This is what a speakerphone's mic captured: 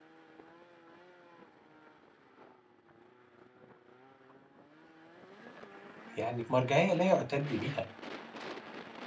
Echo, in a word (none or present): none